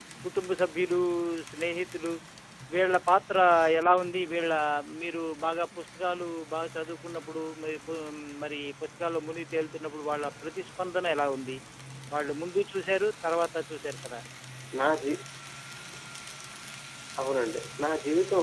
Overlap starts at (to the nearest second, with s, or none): none